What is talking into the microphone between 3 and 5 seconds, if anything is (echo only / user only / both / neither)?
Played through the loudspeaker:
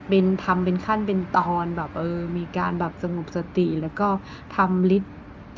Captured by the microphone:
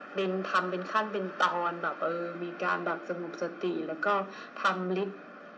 echo only